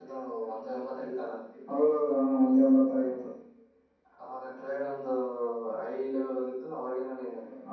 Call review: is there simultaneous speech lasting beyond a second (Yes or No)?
No